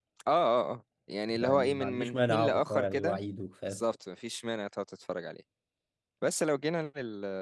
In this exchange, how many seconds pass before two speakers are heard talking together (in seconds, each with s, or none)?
1.4 s